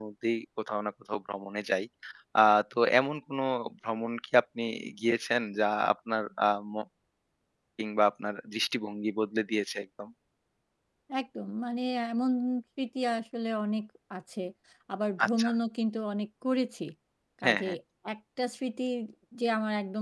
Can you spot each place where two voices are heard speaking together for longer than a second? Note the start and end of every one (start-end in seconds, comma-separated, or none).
none